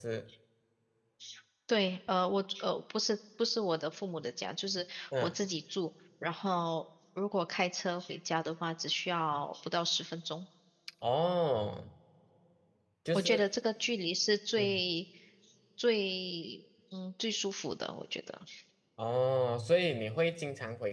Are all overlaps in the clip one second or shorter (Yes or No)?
Yes